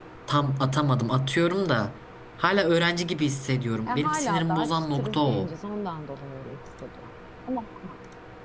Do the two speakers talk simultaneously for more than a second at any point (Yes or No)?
Yes